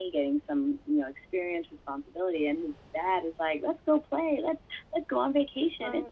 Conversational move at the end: listening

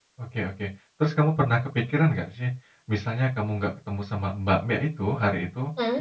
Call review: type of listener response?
listening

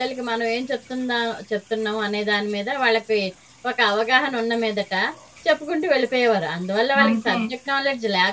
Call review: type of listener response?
listening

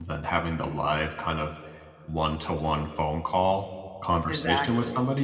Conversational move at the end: listening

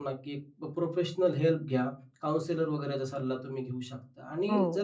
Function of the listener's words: listening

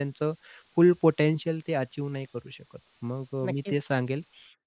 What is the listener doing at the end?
listening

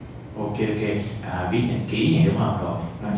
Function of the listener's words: listening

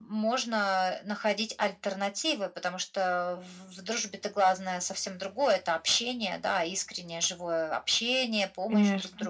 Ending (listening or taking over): listening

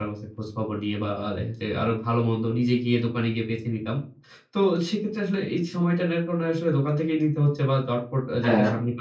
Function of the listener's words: listening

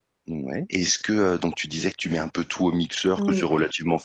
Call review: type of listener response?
listening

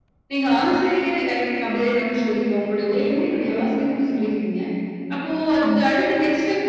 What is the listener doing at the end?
listening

